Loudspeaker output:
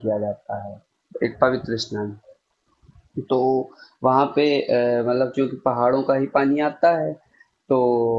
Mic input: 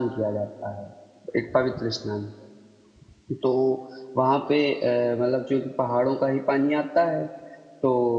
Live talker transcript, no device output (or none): none